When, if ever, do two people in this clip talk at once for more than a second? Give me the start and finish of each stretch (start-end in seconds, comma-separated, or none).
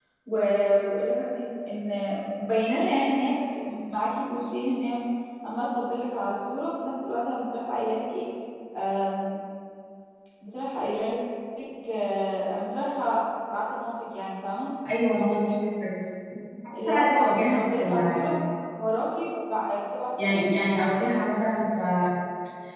16.9-18.3